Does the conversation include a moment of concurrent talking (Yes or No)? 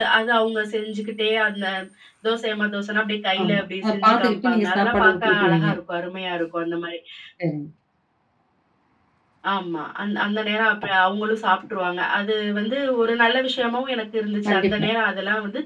Yes